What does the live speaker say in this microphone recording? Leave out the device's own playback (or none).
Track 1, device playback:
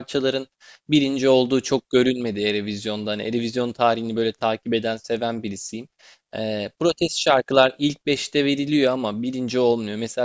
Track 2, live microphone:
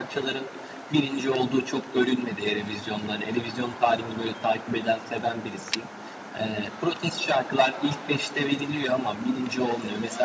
none